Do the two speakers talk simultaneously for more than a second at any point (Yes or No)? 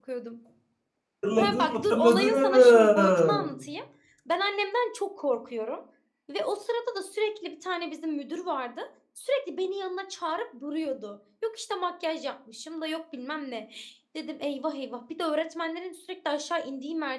Yes